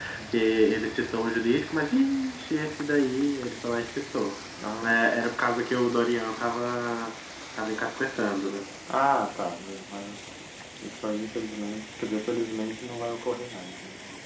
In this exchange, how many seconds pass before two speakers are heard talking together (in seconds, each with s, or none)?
none